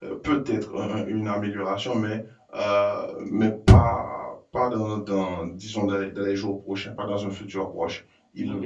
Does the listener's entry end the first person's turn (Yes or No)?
No